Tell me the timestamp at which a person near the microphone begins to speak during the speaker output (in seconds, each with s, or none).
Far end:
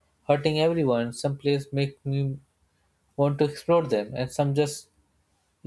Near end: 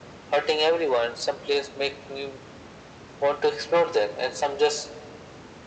none